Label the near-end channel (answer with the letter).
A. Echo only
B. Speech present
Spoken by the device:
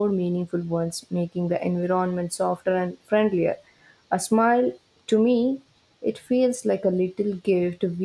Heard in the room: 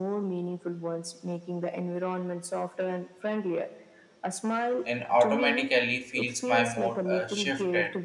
B